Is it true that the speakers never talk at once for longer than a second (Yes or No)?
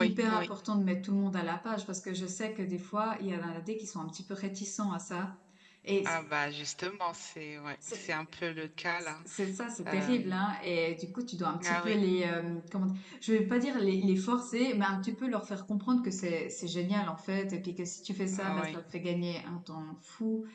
Yes